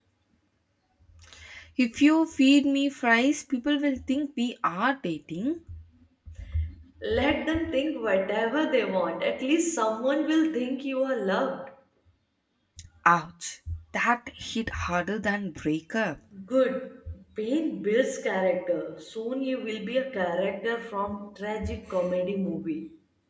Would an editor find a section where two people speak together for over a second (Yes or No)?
No